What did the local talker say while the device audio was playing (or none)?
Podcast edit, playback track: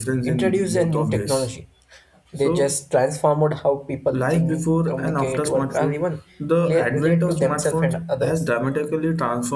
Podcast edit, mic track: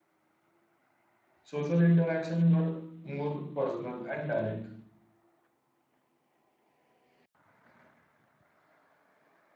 Social interaction were more personal and direct.